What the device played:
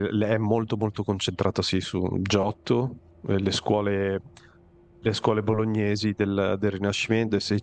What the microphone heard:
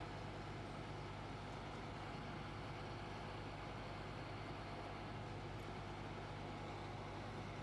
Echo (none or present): none